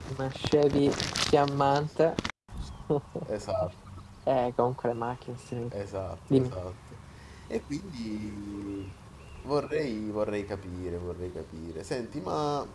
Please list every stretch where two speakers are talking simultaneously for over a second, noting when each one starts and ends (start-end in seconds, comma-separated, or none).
none